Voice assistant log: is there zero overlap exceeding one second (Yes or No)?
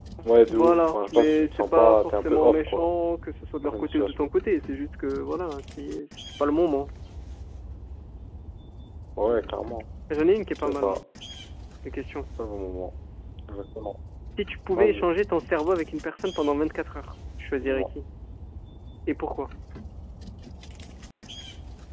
No